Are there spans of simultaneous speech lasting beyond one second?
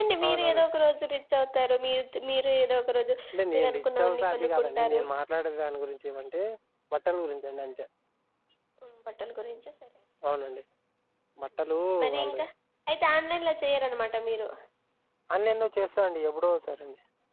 Yes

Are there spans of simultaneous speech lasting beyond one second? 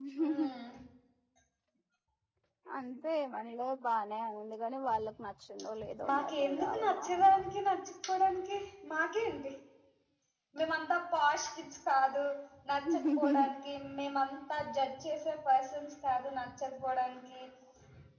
Yes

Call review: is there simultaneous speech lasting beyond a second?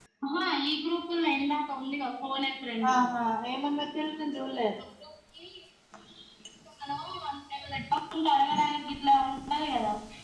No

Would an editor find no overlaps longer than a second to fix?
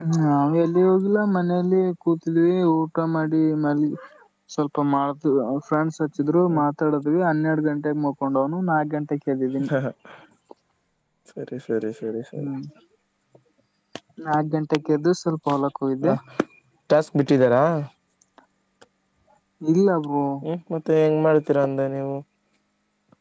Yes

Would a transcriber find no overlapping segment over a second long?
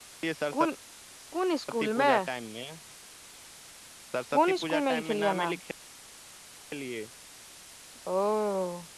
No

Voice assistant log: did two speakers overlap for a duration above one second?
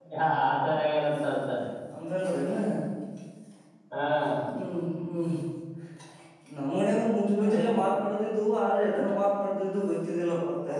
No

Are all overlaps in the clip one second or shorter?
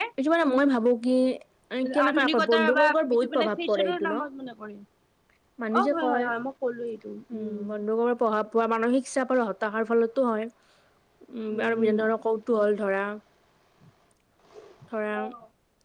No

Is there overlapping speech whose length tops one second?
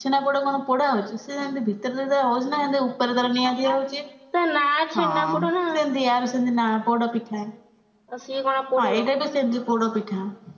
No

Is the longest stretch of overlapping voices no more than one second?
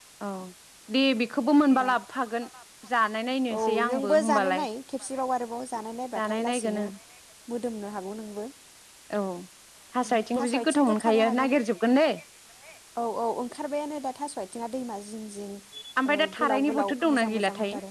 No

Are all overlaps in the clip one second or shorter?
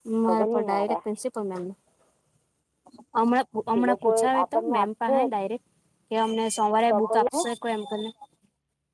No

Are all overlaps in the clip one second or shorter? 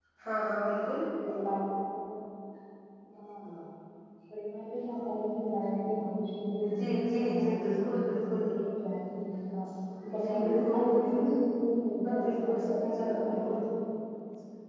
No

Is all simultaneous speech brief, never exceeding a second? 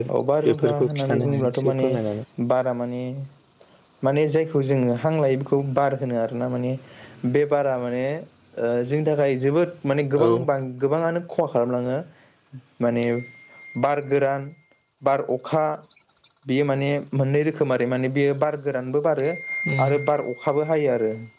No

